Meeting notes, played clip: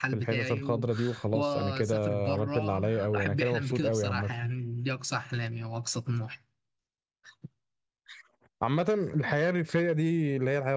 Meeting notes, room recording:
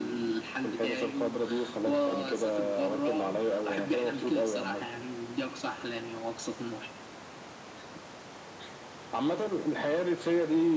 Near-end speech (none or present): none